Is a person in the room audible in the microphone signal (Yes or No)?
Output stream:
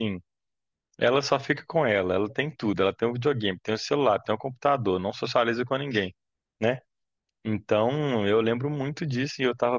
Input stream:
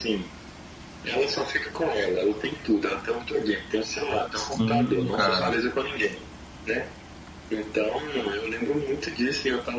Yes